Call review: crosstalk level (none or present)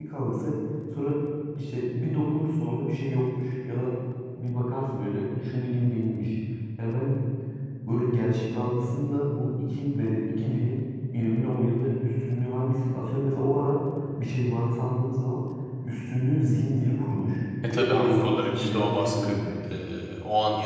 present